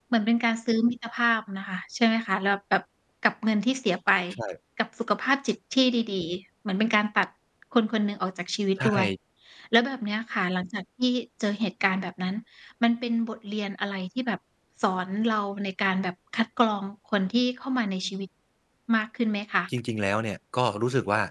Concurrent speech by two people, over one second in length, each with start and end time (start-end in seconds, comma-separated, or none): none